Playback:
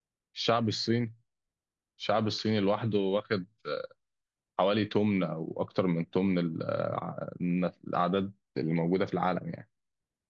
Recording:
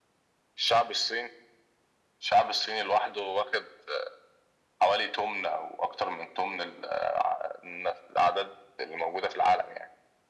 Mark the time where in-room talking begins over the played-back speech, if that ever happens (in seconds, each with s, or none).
none